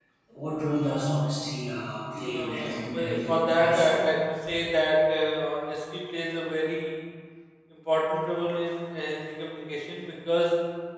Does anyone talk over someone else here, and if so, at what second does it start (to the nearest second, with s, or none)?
2 s